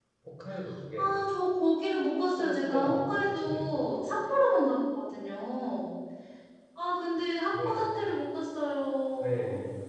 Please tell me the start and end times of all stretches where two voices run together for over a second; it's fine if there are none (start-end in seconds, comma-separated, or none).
2.4-3.8